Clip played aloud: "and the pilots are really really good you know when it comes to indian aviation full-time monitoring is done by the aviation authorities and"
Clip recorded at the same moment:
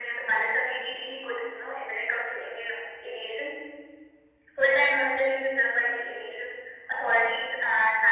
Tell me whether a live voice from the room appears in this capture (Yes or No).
No